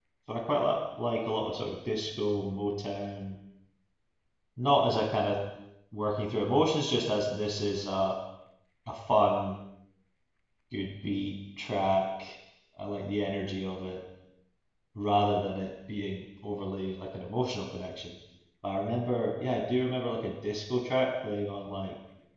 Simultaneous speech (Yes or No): No